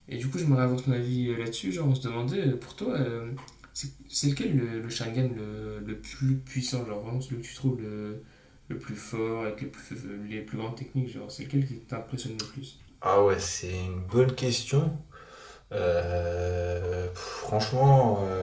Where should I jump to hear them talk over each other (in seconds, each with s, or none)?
none